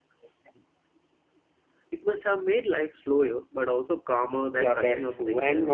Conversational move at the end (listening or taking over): taking over